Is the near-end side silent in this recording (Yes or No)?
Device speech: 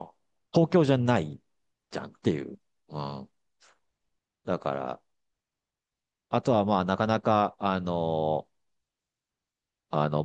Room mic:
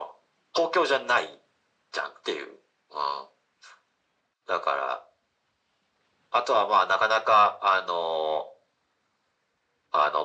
Yes